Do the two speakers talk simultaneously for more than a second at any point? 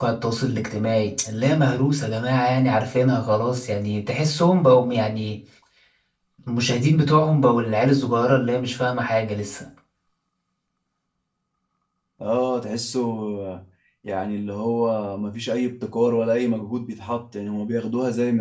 No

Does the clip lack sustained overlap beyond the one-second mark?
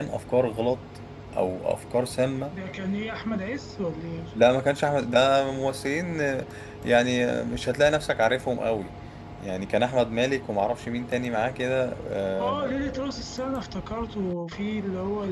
Yes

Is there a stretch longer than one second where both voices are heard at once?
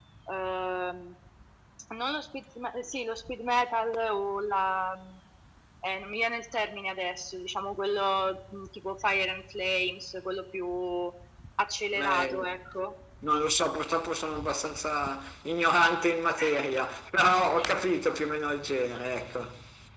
No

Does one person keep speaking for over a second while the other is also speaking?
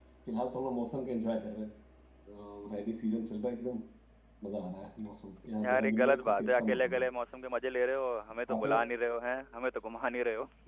Yes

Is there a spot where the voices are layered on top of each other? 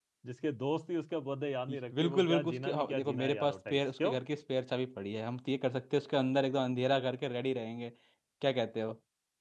Yes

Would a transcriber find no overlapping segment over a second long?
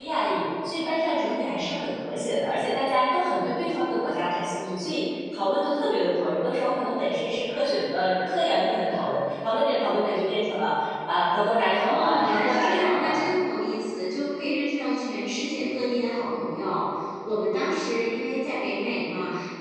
No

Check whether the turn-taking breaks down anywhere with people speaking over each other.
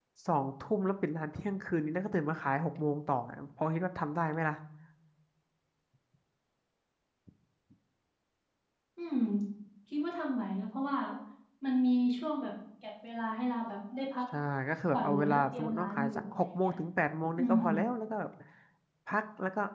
Yes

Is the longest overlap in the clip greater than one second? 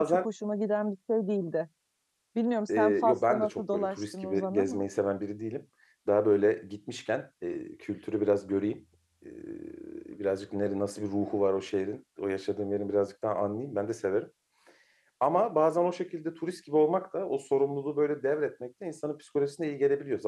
Yes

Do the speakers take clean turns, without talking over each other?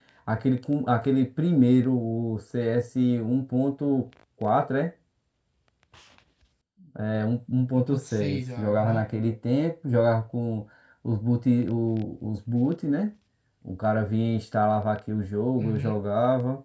No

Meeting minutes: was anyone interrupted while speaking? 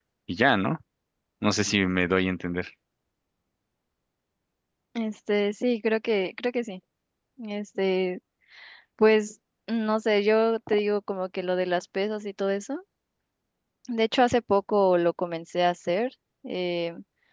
No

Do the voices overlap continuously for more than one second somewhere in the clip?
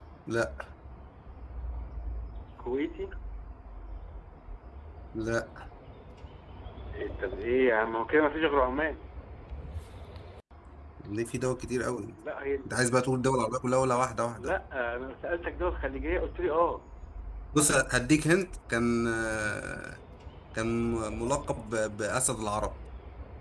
No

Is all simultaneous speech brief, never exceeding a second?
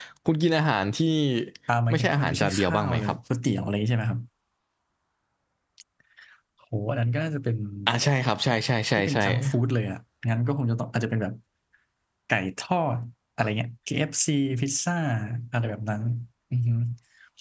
No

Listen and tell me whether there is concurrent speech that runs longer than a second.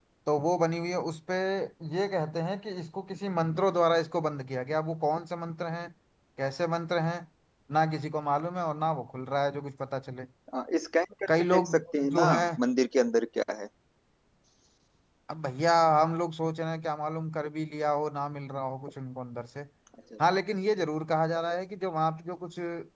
No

